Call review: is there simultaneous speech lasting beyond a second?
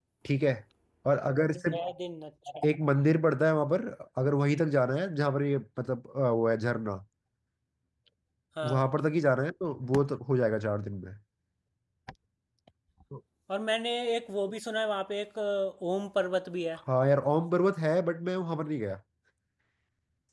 No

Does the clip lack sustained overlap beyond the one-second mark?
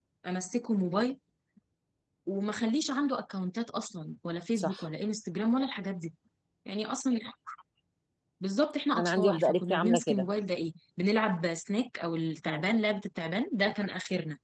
No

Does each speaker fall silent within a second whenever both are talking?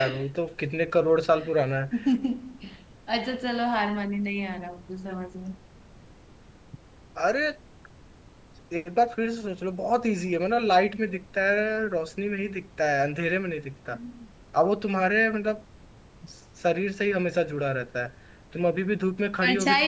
Yes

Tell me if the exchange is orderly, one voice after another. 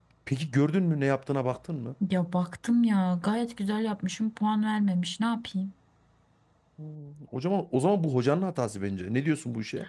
Yes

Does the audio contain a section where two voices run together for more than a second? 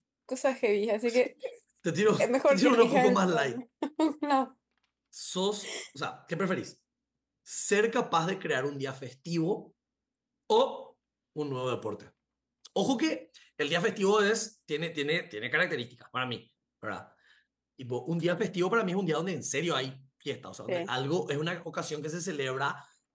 Yes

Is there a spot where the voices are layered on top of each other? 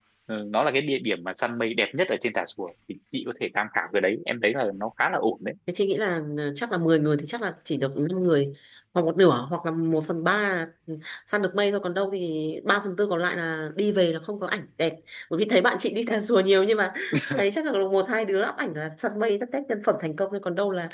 No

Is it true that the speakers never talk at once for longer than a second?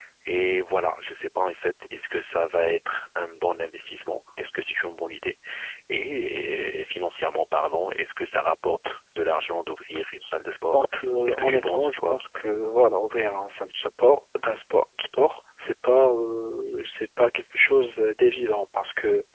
No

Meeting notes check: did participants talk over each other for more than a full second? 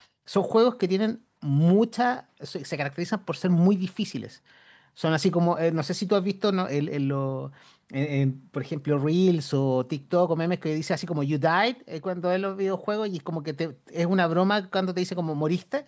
No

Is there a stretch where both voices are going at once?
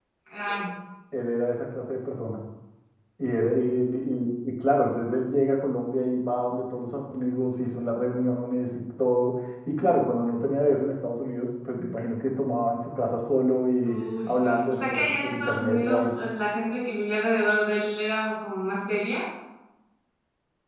Yes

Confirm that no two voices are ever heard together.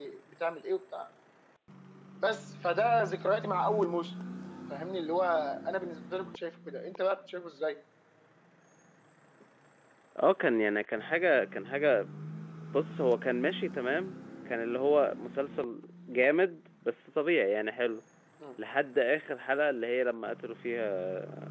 Yes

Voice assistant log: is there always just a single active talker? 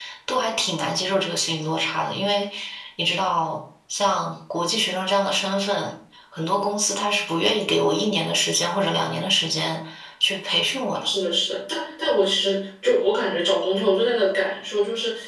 Yes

